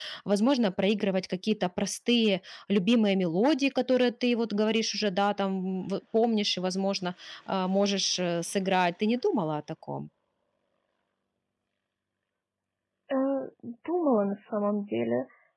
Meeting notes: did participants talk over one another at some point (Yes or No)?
No